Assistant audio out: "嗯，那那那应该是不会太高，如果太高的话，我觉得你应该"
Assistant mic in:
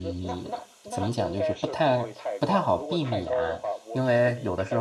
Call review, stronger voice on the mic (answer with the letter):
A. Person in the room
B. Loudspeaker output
A